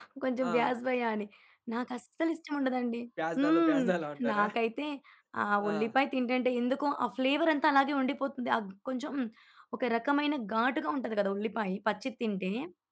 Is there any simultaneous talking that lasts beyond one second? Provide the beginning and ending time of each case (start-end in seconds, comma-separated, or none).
none